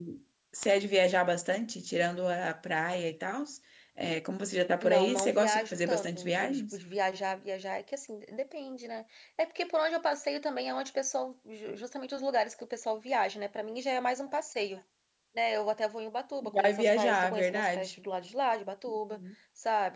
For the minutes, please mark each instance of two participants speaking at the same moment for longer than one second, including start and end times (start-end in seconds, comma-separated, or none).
4.8-6.8, 16.5-17.9